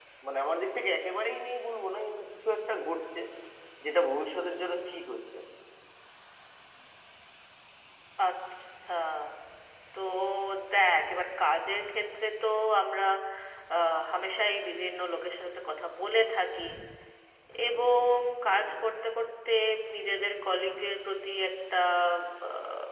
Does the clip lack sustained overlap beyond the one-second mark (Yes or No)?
Yes